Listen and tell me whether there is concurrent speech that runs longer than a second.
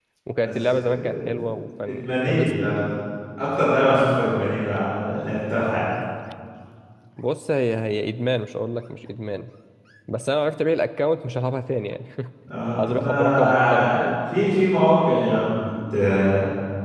Yes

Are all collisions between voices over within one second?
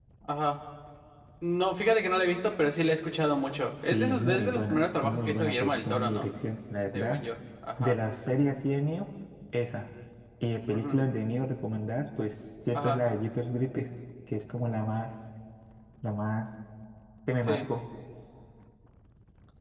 No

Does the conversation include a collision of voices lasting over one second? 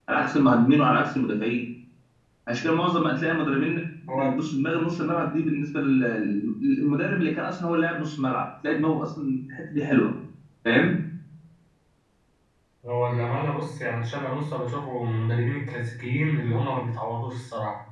No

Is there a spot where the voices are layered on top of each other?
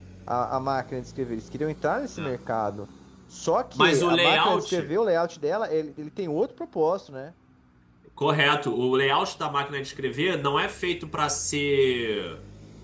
Yes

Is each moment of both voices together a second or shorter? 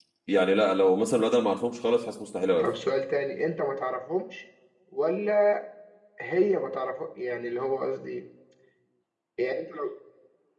Yes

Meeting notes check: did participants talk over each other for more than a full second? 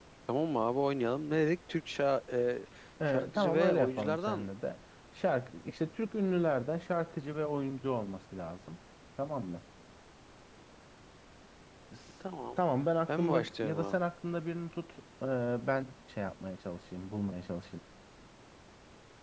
Yes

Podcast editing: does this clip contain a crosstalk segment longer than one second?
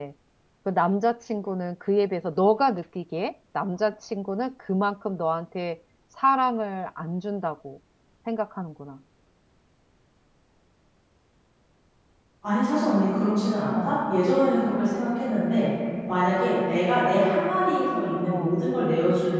No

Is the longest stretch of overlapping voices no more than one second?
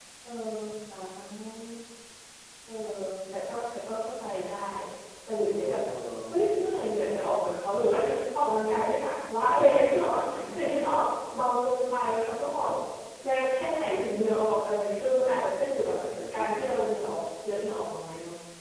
Yes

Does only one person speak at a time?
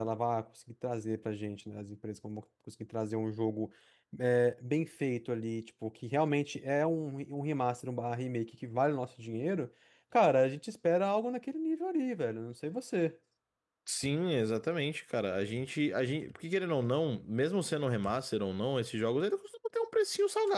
Yes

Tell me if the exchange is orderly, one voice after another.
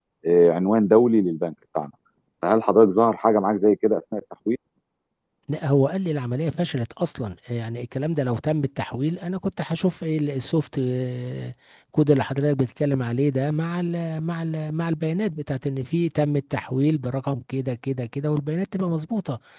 Yes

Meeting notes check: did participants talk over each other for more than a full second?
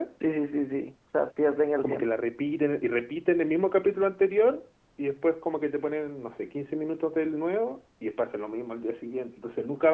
No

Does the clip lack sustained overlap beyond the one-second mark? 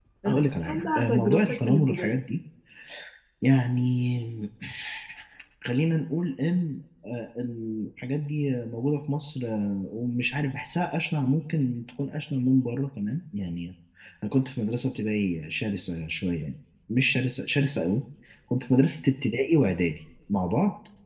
No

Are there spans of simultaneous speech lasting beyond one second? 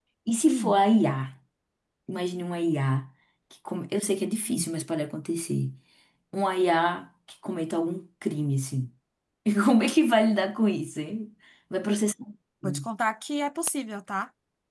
No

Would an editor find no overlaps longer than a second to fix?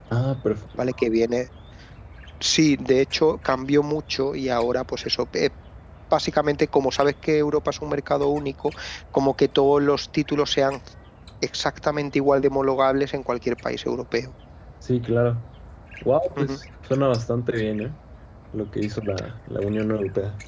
Yes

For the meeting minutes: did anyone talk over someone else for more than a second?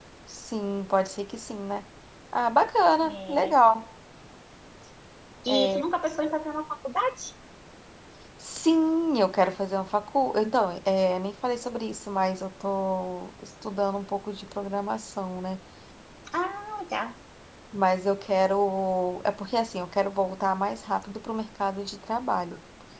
No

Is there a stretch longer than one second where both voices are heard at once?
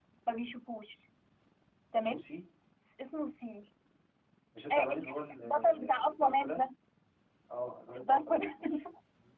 Yes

